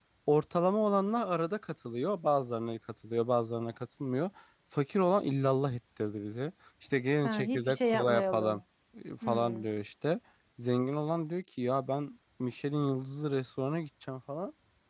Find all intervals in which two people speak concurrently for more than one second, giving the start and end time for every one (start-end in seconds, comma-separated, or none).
7.2-8.6